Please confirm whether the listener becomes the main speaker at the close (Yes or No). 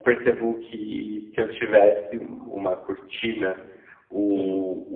No